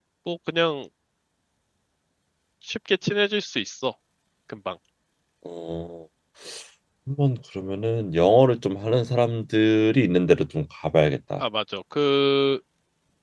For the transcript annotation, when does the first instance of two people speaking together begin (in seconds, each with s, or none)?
none